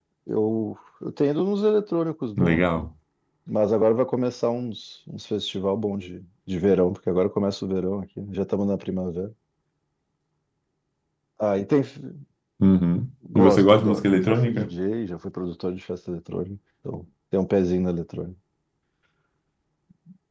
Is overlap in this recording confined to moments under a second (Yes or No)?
No